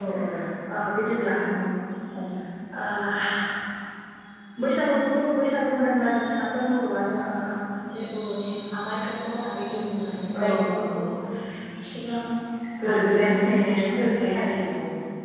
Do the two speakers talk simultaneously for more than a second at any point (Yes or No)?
Yes